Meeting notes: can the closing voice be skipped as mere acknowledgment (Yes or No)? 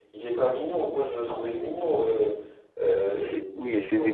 No